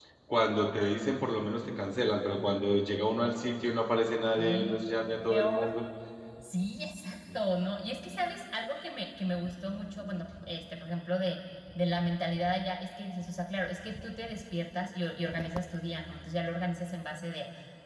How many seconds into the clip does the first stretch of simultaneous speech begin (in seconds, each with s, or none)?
4.4 s